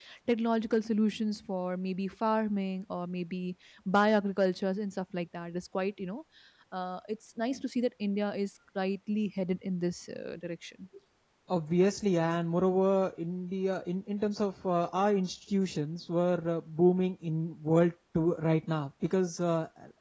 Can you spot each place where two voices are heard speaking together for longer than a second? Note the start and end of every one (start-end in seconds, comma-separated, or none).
none